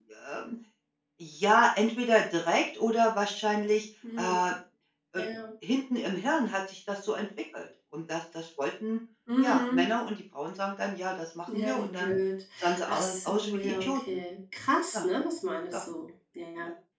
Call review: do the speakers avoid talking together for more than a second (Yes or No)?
No